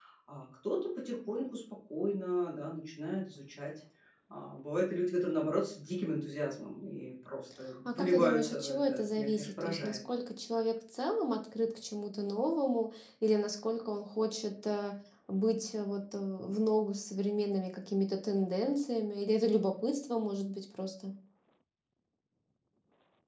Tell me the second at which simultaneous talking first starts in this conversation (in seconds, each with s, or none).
7.8 s